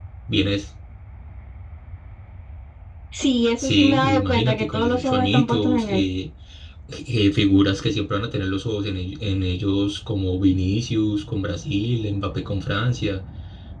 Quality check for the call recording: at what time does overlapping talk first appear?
4 s

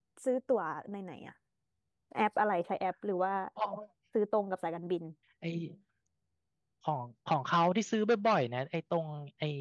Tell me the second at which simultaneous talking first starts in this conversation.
none

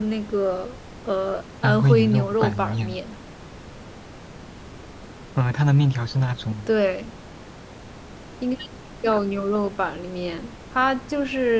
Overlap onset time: 2 s

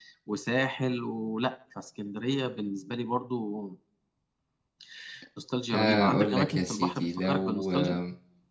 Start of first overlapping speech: 6 s

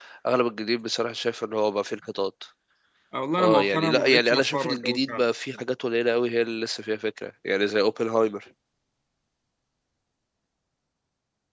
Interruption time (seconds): 3 s

